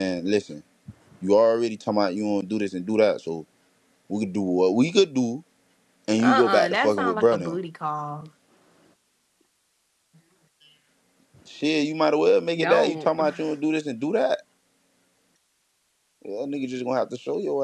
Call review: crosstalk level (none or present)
present